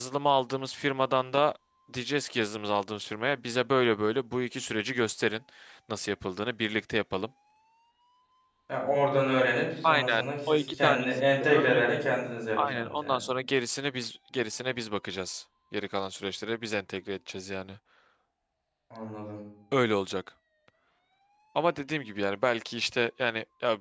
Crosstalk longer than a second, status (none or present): present